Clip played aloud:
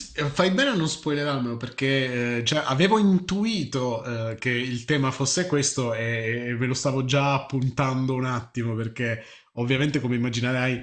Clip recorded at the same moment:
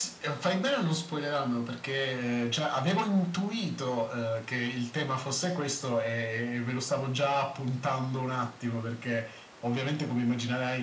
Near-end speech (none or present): none